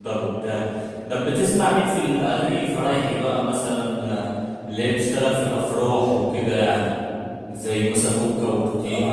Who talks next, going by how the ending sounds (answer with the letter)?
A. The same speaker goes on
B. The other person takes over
B